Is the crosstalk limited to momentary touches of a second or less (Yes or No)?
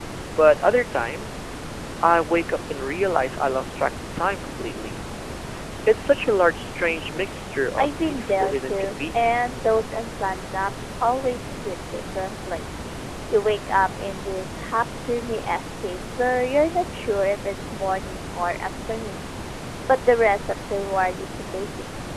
No